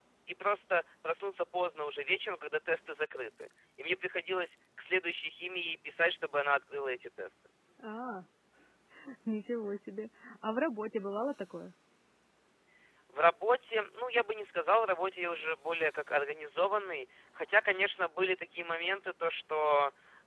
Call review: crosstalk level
none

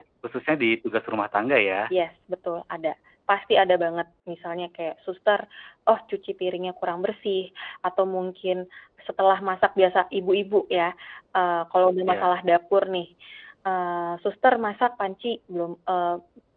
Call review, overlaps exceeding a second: none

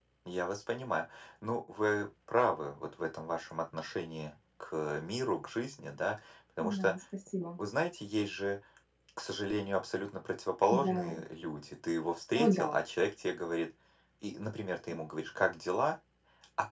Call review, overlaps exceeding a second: none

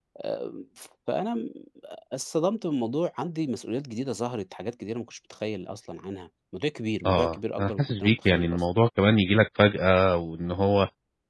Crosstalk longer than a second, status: present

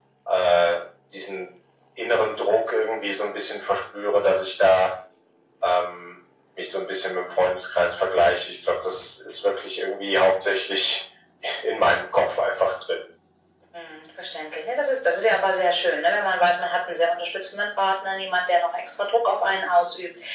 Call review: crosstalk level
none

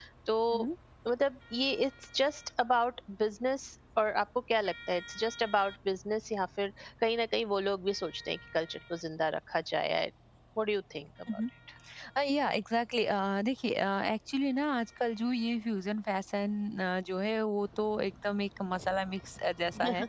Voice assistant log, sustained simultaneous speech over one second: none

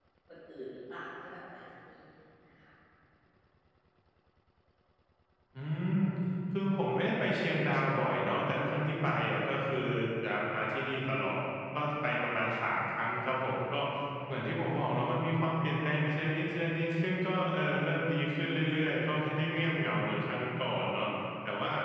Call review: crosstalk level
none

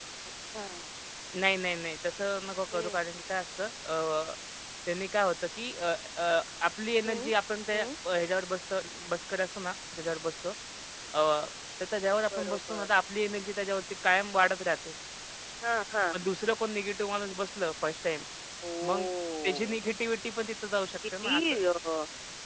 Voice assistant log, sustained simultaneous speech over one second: none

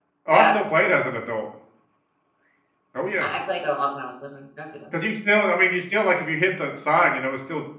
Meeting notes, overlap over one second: none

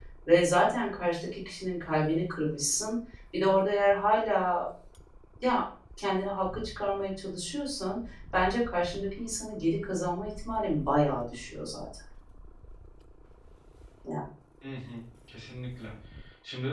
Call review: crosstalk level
none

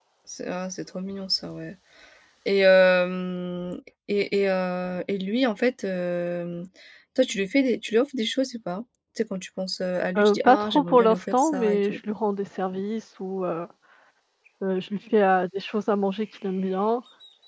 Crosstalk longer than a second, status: present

